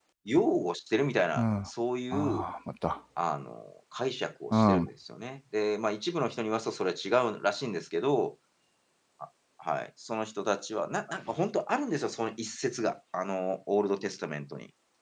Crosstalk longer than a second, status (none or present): none